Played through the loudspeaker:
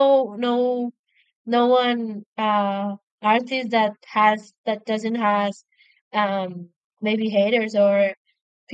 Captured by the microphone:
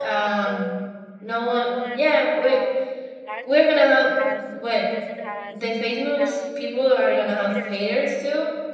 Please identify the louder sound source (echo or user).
user